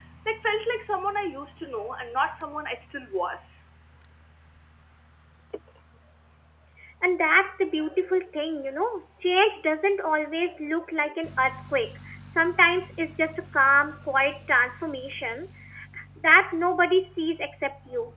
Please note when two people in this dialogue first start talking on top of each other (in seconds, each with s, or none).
none